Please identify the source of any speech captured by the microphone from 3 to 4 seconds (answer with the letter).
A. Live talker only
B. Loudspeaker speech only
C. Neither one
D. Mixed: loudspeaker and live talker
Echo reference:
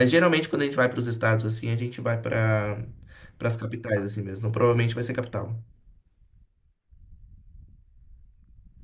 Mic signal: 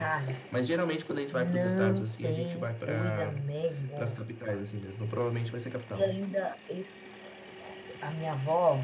D